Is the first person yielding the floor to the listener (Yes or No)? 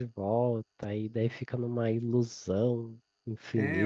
Yes